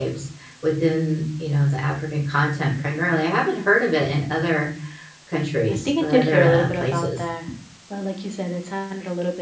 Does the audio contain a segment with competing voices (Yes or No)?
Yes